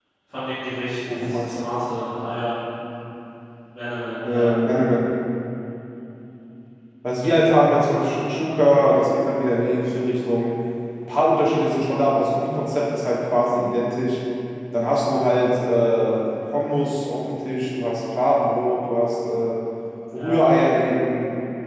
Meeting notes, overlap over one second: none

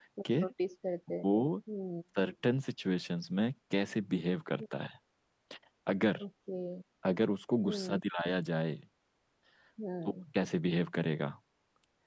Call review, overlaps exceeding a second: none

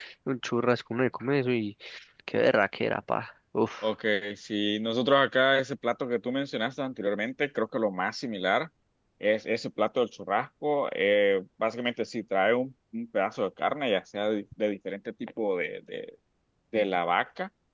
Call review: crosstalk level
none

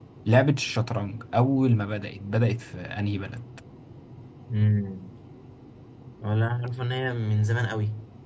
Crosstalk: none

